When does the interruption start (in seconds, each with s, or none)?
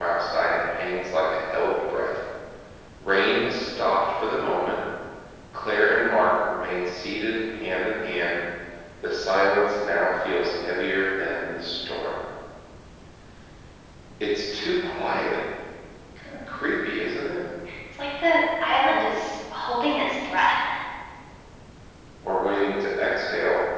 none